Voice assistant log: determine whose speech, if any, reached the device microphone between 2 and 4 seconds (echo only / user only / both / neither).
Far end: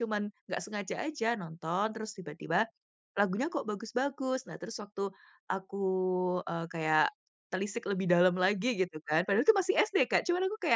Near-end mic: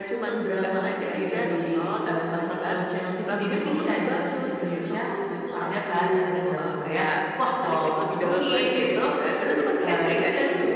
both